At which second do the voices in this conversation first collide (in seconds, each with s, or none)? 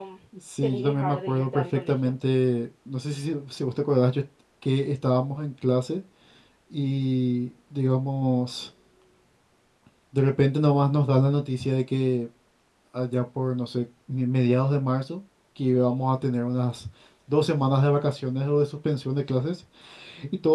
0.6 s